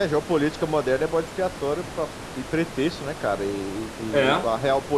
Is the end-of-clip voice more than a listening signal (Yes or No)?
No